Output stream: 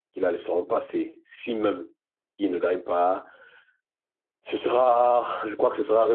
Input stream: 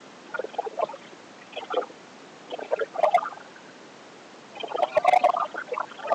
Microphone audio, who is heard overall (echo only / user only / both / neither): echo only